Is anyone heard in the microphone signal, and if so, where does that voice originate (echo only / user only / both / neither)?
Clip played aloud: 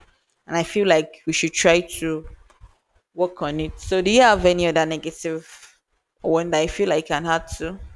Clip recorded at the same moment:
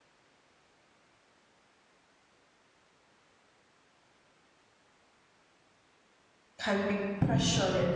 user only